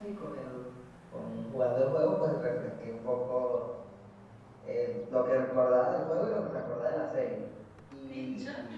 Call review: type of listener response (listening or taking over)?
taking over